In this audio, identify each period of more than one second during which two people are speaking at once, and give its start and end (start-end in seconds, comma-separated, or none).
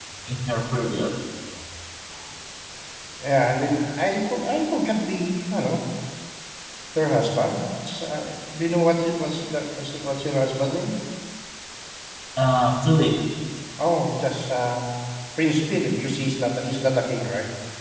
none